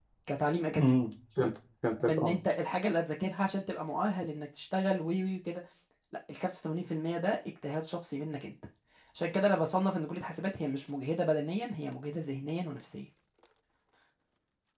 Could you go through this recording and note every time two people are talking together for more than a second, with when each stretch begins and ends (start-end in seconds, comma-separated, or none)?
none